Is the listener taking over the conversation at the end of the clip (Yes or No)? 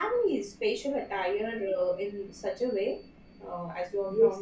Yes